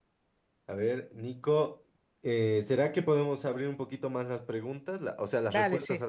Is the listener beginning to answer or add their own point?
Yes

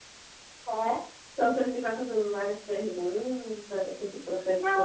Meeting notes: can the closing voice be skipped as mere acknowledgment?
No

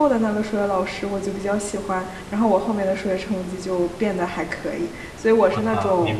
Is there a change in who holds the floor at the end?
Yes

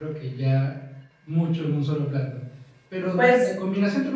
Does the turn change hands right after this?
No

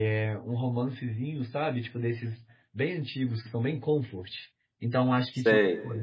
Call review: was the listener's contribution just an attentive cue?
Yes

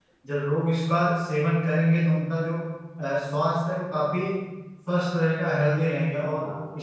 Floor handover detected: No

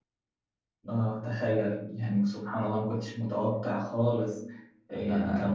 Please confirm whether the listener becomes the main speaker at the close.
No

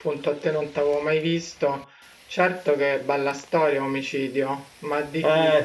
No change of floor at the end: No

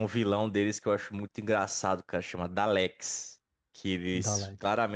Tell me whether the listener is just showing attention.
Yes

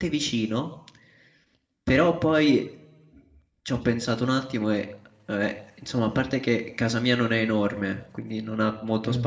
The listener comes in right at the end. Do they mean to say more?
No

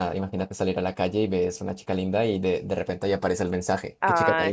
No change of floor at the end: No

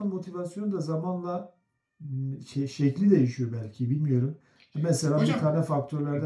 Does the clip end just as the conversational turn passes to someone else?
No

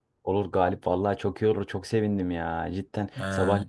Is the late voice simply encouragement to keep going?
Yes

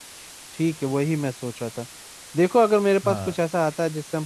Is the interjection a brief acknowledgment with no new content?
Yes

